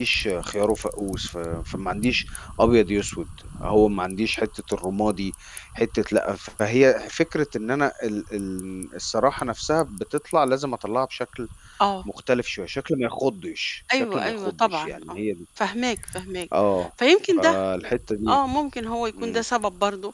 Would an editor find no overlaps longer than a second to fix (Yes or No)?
No